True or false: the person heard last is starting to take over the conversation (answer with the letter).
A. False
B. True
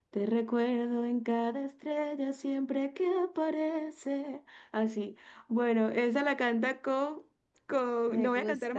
A